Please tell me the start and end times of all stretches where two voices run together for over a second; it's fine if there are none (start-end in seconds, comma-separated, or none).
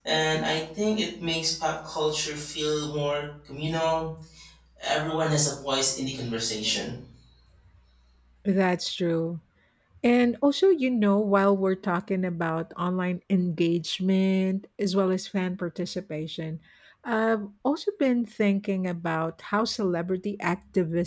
none